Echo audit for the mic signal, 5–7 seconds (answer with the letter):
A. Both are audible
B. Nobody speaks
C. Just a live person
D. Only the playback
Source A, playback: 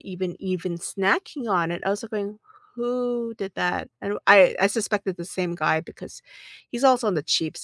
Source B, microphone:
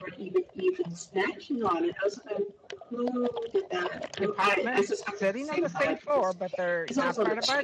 A